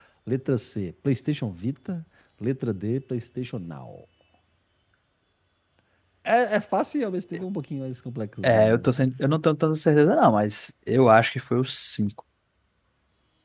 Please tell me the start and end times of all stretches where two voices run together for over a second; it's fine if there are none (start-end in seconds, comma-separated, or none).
none